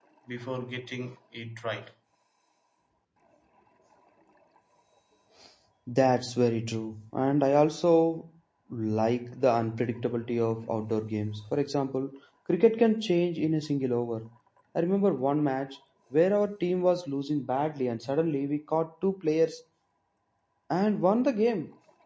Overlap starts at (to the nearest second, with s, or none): none